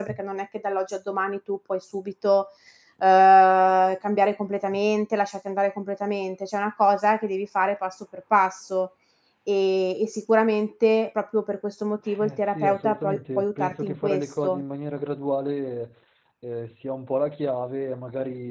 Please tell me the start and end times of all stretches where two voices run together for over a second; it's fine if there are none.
12.2-14.6

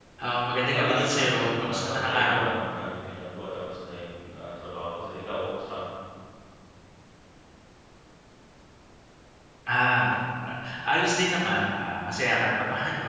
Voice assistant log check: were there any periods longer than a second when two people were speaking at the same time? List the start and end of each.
0.7-2.6

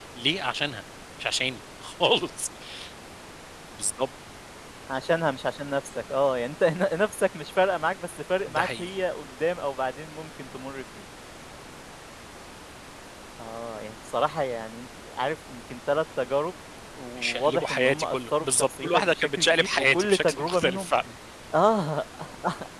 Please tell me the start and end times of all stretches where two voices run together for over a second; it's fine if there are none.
17.2-20.9

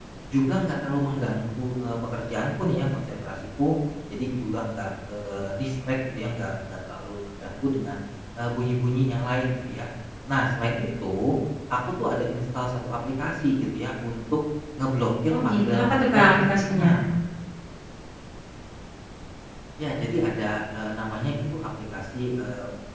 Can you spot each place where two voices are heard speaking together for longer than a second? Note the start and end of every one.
15.3-16.9

